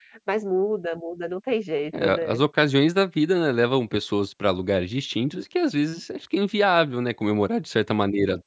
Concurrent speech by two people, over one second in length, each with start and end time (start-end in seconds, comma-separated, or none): none